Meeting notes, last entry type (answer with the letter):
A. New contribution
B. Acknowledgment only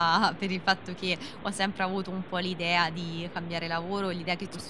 B